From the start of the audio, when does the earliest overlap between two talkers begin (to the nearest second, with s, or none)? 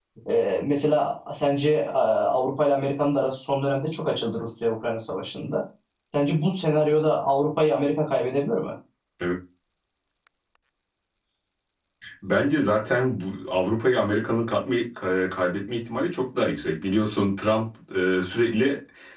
none